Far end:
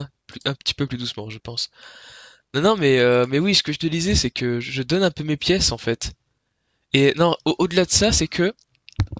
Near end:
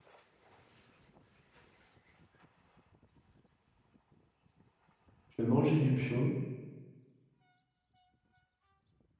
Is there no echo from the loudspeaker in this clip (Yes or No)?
Yes